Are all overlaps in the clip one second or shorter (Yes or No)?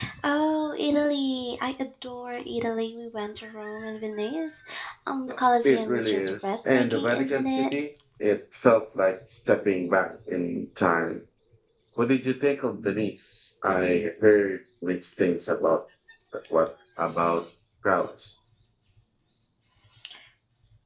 No